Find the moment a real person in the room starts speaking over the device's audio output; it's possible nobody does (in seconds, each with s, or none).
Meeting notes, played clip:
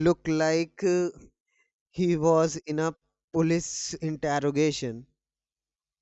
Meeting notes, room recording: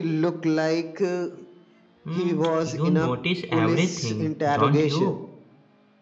2.1 s